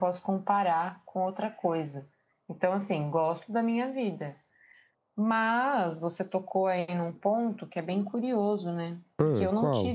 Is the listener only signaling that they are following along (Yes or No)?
Yes